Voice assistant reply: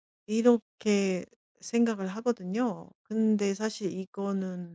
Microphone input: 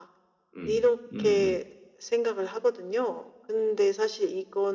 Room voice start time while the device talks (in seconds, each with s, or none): 0.6 s